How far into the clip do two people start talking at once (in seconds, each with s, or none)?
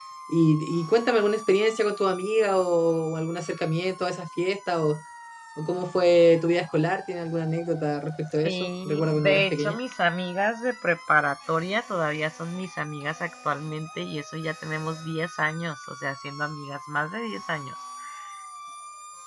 8.4 s